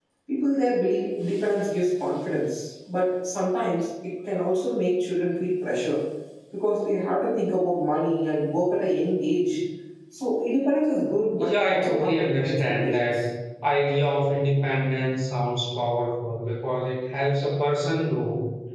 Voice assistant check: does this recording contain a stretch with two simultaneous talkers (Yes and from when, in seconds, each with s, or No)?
Yes, from 11.4 s